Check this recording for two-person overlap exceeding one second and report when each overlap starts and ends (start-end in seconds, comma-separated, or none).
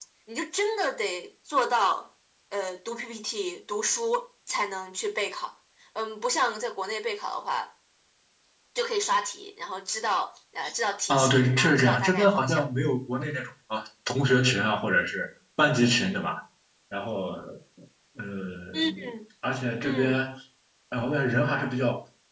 11.1-12.7